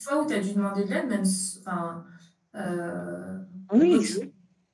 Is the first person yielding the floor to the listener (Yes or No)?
Yes